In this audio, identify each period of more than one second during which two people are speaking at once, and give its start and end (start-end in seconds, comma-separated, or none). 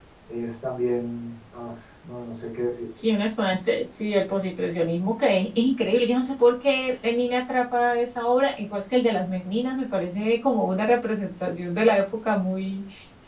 none